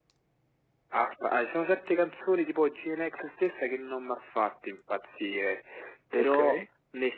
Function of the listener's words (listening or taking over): listening